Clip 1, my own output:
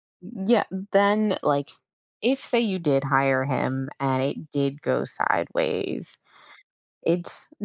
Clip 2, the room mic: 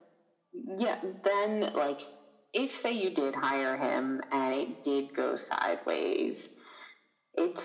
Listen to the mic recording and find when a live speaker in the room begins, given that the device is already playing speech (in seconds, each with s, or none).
none